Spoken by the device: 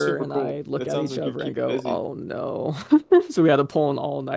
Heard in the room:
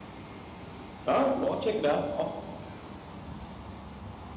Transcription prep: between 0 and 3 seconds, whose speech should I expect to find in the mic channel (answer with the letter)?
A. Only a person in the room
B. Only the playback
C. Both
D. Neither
A